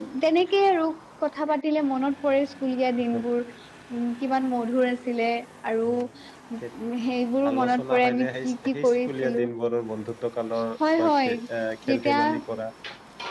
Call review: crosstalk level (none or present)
present